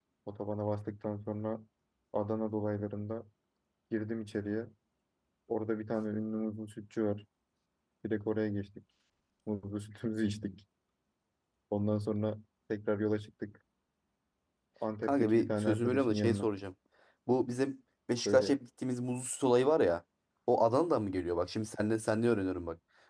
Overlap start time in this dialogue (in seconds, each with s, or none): 15.0 s